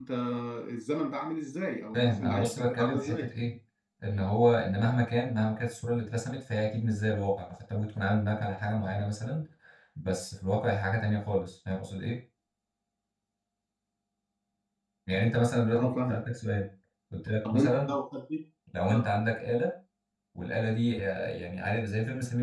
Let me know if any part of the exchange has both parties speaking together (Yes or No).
Yes